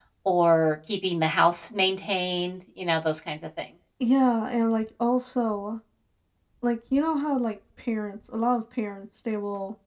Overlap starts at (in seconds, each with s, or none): none